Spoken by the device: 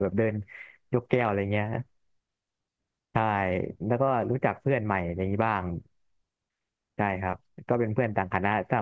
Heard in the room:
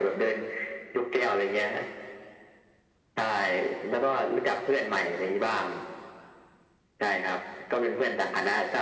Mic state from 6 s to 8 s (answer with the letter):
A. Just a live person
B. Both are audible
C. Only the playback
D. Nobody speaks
C